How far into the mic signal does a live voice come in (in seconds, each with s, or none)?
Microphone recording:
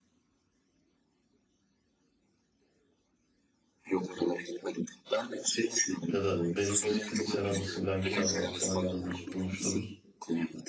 6.1 s